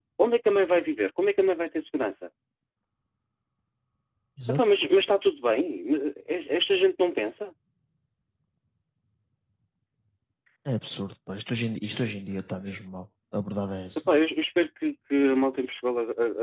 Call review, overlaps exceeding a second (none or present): none